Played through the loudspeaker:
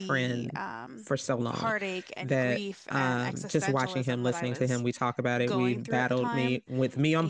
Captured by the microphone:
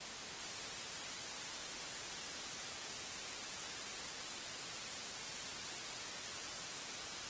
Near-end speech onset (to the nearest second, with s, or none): none